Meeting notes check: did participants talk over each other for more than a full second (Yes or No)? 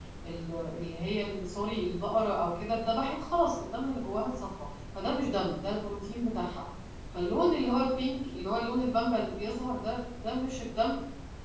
No